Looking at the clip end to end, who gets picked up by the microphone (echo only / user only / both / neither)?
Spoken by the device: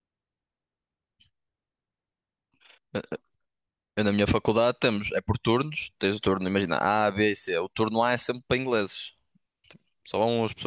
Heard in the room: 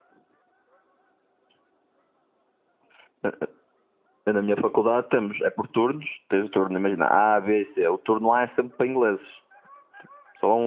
echo only